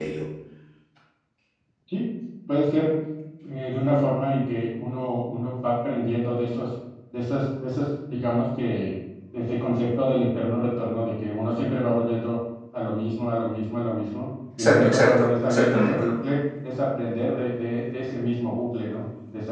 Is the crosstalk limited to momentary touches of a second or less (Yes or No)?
No